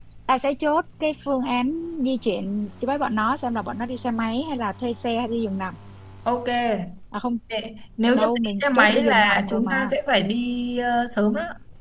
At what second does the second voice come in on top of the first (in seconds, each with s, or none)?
8.2 s